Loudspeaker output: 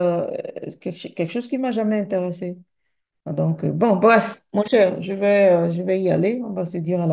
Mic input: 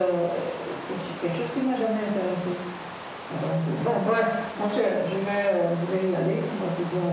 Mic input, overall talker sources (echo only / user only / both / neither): echo only